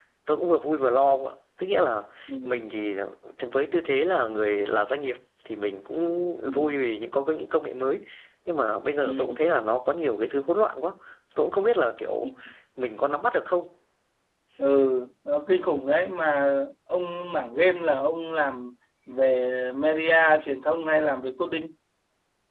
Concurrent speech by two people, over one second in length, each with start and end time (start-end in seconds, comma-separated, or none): none